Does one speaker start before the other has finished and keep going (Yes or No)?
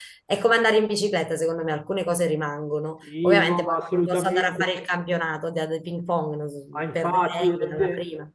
Yes